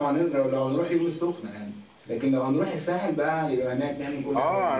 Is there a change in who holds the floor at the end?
Yes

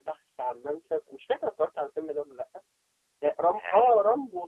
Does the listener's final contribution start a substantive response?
No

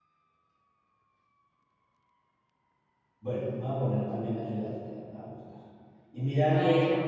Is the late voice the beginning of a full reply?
No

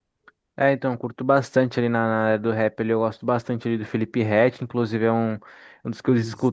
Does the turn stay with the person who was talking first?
Yes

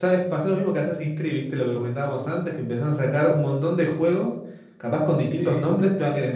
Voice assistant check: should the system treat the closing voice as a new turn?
No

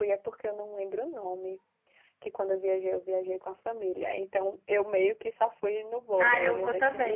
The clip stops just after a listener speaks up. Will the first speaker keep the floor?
No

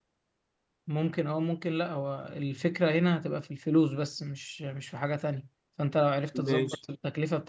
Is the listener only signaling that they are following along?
Yes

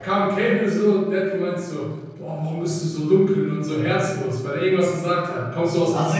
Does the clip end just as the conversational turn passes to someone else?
Yes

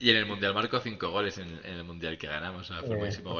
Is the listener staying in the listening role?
Yes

